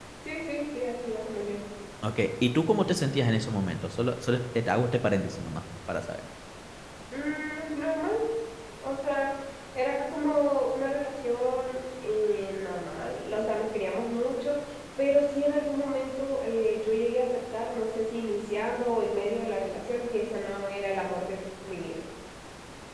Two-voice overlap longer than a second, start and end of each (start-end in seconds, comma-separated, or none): none